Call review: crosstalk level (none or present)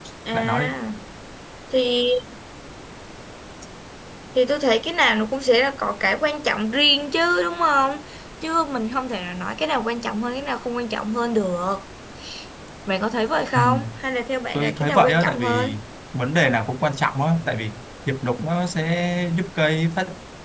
present